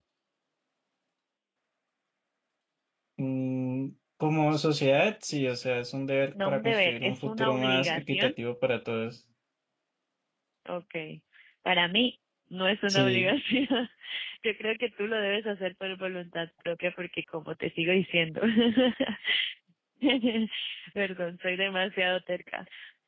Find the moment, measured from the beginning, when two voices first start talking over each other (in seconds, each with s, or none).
6.5 s